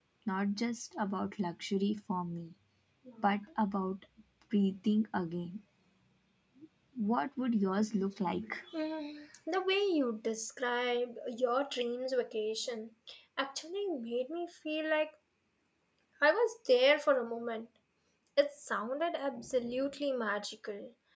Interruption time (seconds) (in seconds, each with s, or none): none